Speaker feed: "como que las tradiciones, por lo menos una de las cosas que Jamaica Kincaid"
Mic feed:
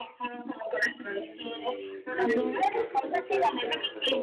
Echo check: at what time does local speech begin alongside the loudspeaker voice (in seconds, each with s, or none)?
1.0 s